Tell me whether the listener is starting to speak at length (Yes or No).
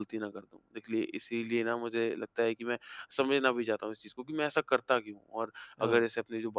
No